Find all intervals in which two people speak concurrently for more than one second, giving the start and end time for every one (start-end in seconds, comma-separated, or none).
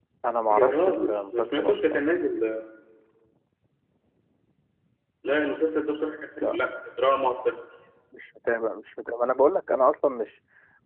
0.5-2.0